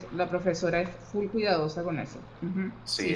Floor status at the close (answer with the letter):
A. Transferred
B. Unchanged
A